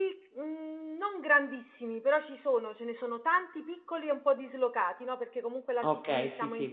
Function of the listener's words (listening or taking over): taking over